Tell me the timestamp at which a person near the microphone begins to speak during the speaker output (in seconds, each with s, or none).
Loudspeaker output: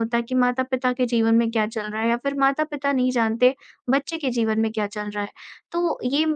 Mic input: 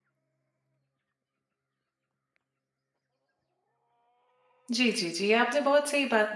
4.7 s